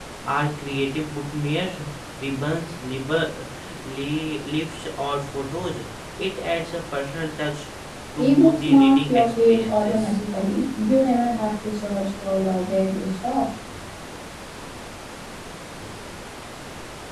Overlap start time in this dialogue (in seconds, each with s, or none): 8.2 s